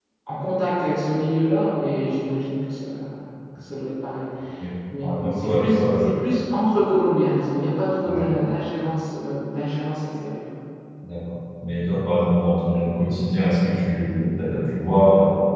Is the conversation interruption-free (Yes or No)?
No